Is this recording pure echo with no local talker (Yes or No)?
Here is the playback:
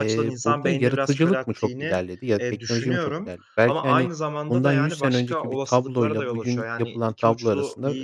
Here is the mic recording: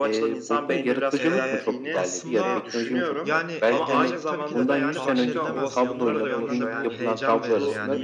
No